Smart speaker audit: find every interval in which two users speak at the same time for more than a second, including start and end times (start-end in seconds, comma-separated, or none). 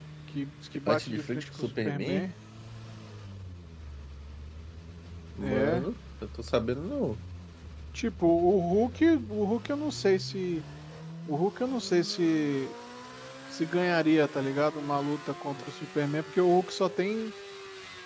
0.9-2.2